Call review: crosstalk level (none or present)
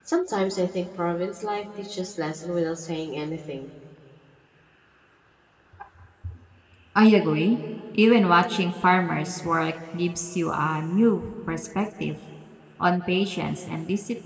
none